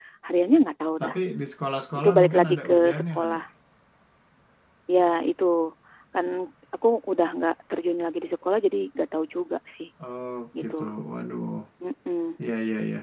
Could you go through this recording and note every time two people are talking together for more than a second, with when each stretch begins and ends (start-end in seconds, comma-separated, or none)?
1.9-3.4